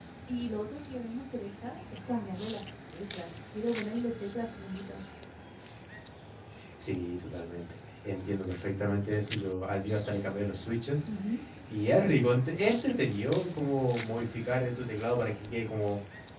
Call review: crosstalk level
none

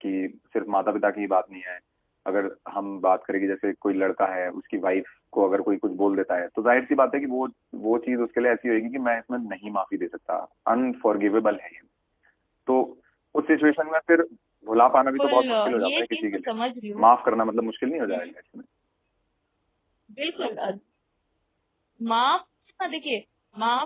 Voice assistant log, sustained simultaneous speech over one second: present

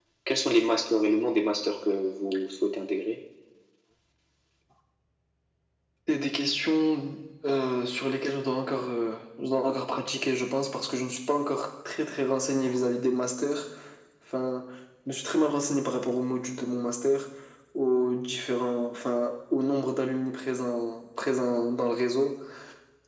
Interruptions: none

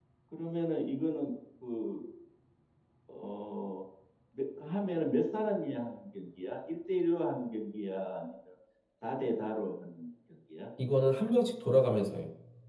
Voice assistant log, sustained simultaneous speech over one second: none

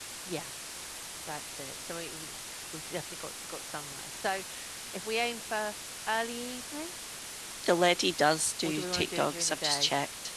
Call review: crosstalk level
present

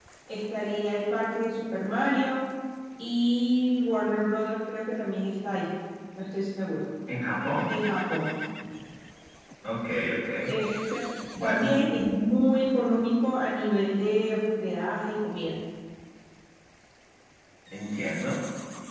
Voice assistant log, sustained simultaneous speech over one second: none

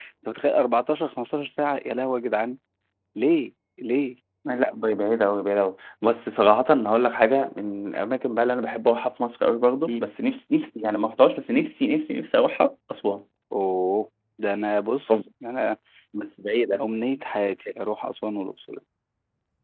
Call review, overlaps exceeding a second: none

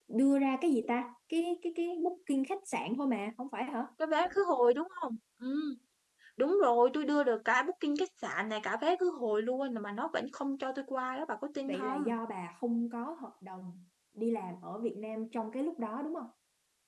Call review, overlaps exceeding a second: none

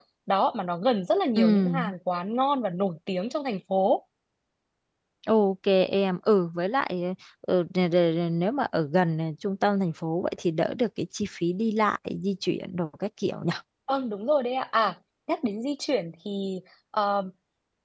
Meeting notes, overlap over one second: none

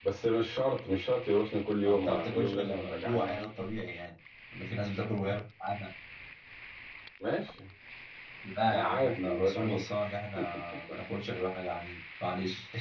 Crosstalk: present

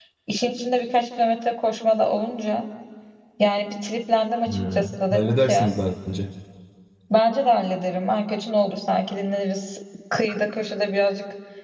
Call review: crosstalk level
present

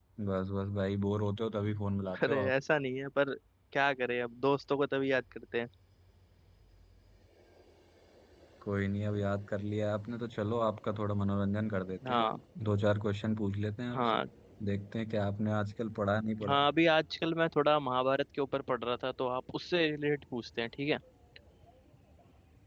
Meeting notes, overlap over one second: none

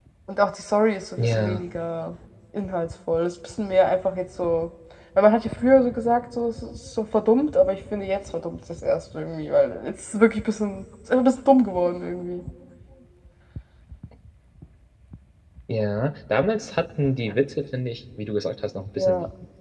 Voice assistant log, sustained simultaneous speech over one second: none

